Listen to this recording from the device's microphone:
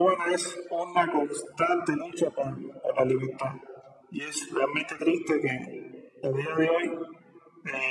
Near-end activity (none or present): none